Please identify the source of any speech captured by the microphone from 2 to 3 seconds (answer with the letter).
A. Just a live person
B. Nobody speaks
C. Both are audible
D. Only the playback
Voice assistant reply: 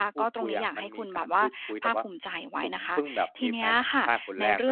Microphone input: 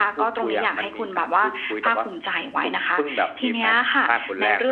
D